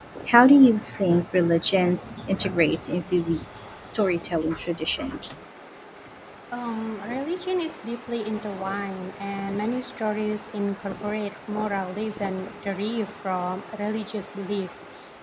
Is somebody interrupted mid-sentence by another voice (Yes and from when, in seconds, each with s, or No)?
No